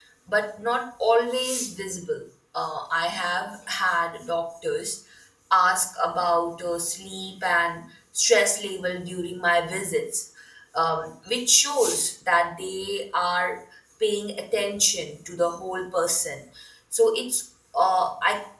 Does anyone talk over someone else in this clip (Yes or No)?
No